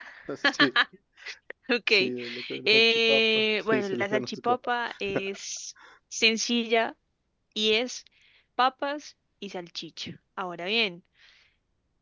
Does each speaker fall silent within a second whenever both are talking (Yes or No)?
No